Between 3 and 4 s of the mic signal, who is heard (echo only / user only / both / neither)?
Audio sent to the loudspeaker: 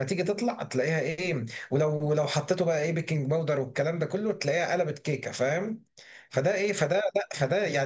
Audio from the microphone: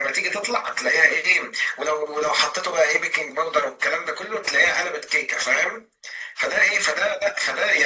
echo only